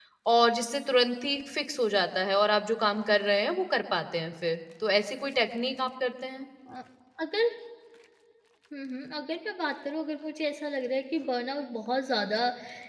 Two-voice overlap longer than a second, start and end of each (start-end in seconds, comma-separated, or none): none